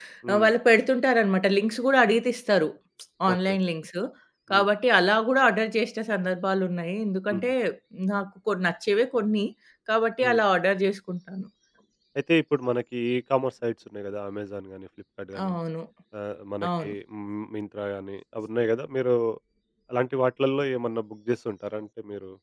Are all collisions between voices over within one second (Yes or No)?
Yes